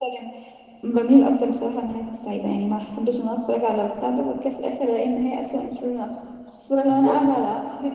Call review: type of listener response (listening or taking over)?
listening